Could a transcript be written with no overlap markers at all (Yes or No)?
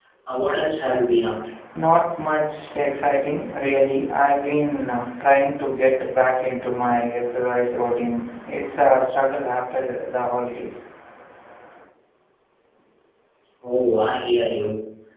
Yes